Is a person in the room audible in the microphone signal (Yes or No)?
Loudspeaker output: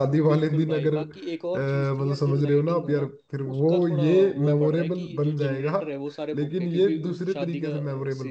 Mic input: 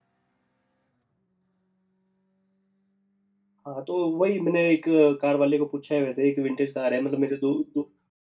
Yes